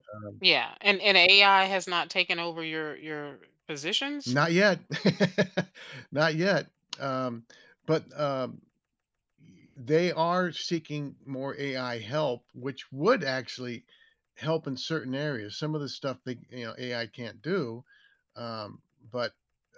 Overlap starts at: none

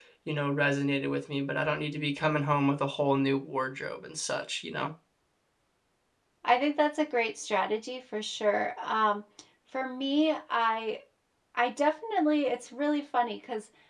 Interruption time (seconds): none

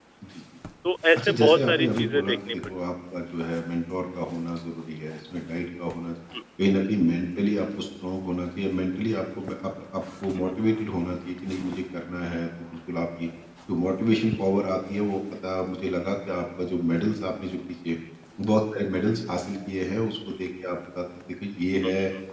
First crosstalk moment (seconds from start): 1.2 s

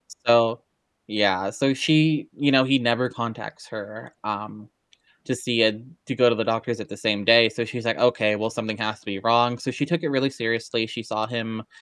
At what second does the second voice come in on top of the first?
none

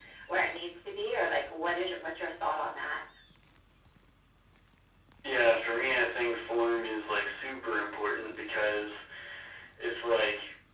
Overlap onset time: none

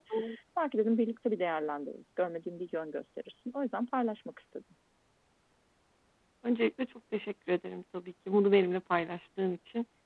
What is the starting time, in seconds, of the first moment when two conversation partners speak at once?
none

